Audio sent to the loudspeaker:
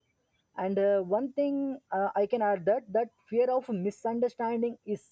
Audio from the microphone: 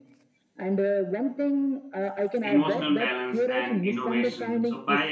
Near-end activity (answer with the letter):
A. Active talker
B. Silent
A